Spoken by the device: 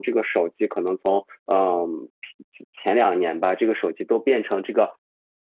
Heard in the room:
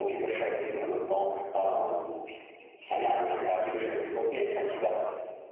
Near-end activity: none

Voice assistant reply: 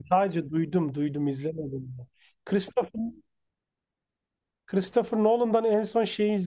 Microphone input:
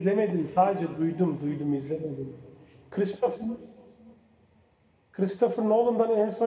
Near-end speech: none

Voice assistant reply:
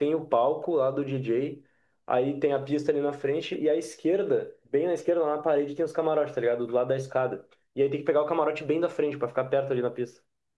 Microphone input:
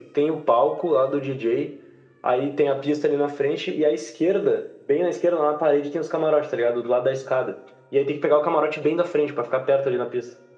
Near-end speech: none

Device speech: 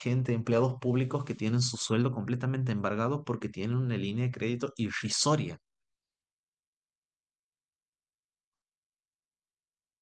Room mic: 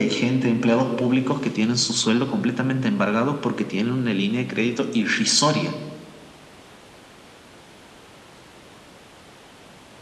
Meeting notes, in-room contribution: none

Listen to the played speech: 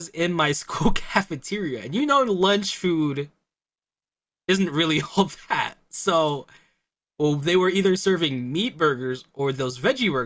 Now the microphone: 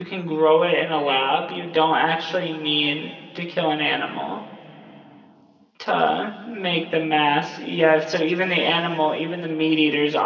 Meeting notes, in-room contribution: present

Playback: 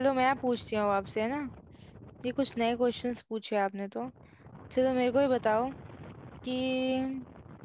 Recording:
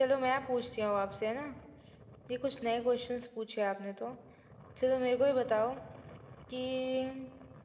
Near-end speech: none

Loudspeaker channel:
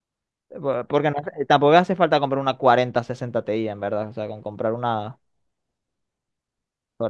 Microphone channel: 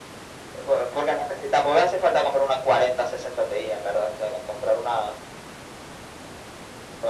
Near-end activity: none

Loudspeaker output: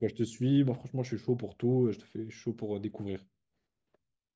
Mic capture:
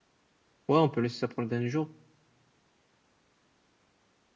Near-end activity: present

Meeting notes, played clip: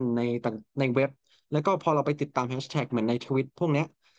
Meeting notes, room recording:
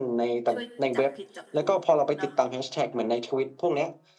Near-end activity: present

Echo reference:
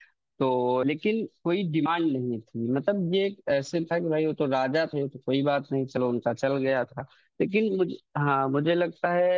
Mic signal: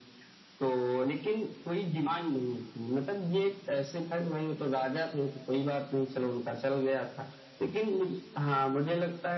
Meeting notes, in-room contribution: none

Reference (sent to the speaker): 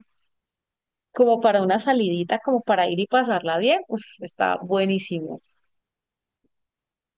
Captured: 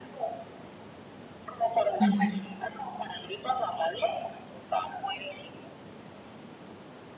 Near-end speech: present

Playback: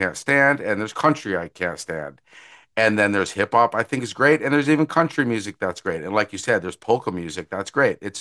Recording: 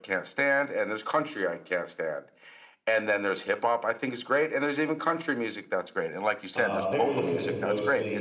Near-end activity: present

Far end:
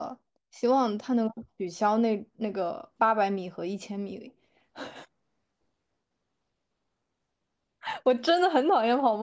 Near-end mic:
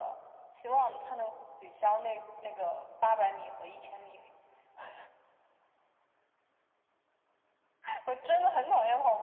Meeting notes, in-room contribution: none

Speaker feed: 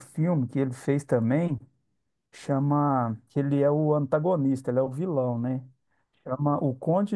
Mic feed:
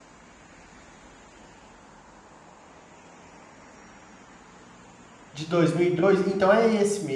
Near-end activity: present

